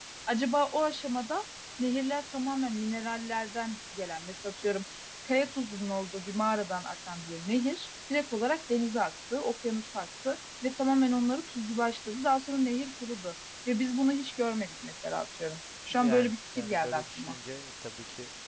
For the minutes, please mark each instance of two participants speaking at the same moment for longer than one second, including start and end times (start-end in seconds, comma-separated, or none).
15.9-17.4